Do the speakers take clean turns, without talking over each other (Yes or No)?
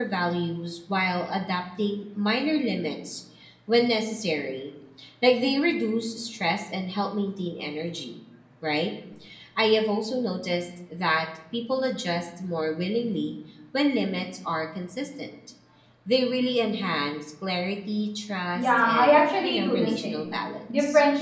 No